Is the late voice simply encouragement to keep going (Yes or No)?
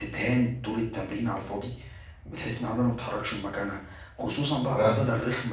Yes